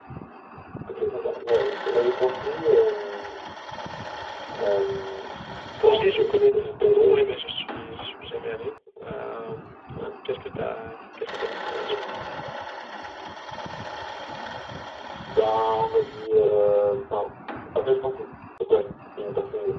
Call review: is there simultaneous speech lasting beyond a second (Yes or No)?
Yes